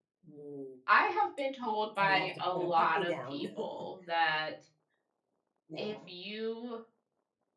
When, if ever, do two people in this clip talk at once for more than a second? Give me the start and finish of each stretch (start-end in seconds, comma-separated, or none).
1.9-3.4